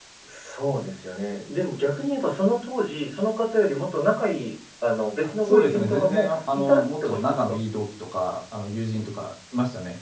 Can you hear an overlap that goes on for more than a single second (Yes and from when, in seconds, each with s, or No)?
Yes, from 5.2 s